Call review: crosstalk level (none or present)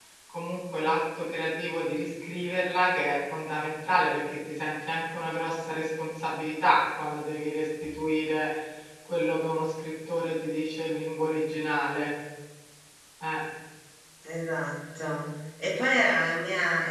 none